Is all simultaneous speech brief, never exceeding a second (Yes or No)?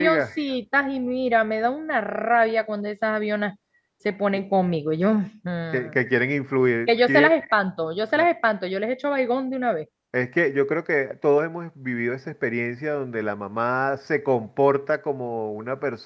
Yes